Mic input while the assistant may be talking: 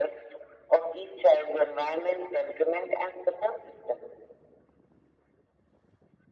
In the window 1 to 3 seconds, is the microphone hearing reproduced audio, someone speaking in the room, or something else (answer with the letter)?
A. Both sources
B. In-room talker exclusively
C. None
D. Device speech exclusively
D